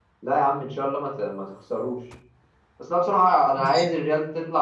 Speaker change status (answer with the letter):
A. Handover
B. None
B